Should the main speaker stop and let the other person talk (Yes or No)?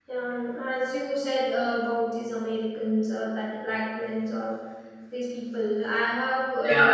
No